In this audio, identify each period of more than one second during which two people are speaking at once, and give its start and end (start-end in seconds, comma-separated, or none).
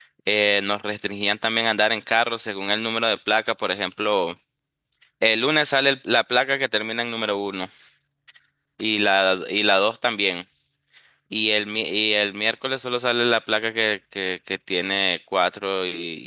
none